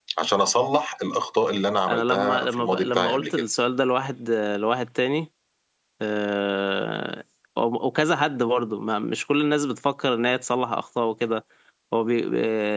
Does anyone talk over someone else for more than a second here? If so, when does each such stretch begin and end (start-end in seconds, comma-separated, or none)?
1.9-3.3